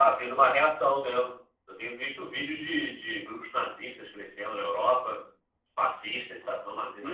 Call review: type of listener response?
taking over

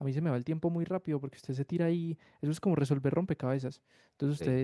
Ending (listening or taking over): listening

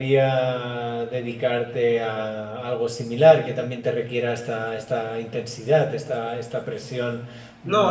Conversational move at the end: taking over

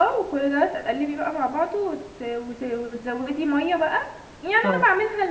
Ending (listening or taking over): listening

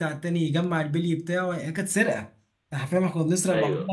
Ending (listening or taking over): listening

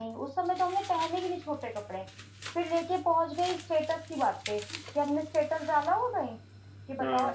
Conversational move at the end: listening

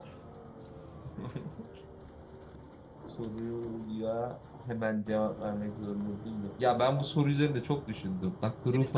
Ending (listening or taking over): taking over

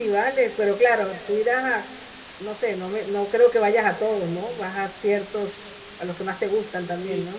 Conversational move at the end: taking over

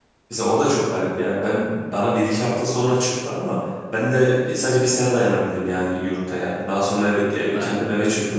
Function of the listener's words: listening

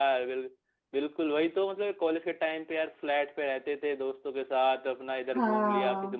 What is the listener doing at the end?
listening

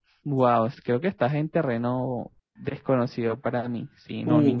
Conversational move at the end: taking over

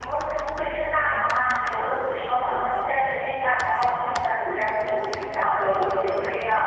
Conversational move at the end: listening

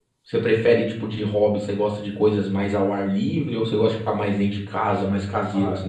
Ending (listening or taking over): taking over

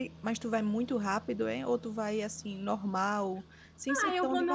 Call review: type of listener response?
taking over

